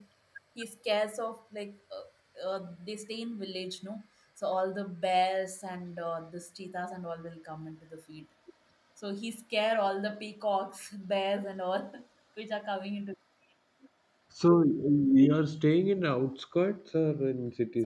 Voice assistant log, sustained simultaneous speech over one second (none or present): none